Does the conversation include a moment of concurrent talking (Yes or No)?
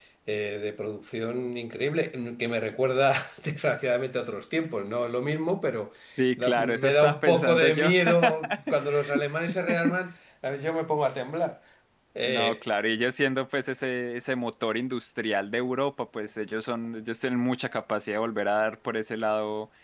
Yes